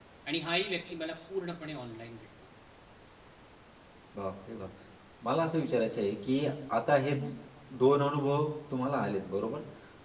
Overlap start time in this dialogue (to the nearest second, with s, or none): none